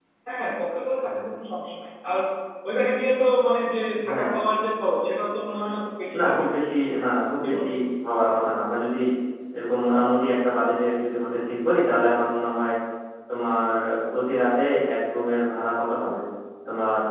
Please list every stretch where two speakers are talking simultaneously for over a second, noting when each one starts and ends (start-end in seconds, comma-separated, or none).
none